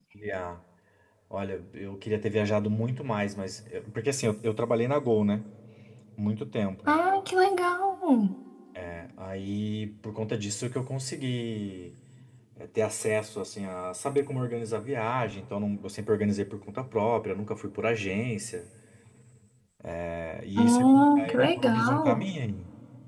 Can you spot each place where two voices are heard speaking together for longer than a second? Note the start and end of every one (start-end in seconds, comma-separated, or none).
20.6-22.2